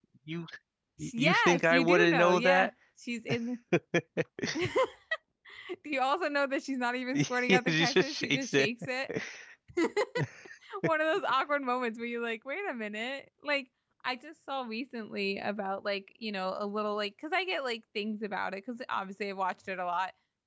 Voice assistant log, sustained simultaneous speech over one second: present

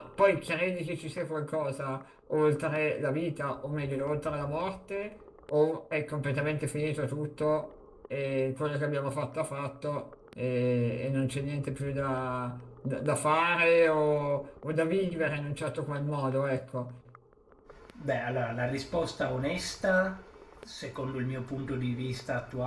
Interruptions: none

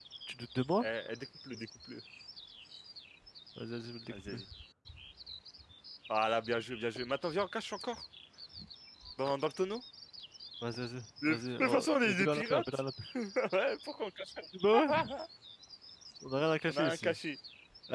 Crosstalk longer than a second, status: present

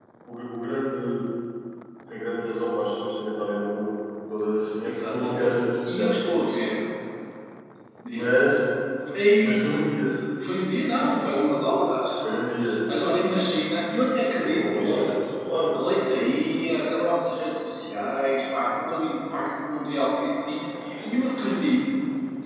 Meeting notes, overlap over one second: present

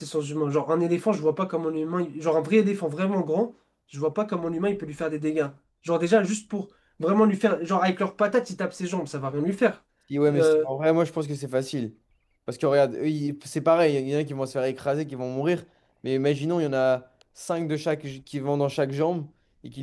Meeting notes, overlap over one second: none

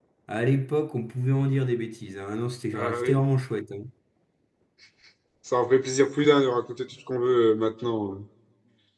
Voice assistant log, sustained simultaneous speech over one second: none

